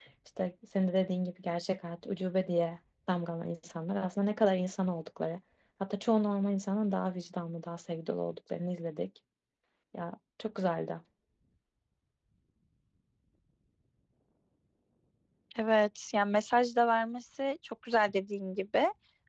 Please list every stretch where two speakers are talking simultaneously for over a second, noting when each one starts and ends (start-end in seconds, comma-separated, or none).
none